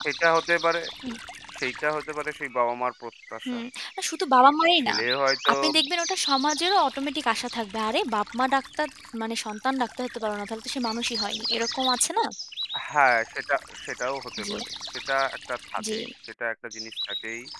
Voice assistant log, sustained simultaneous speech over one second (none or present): none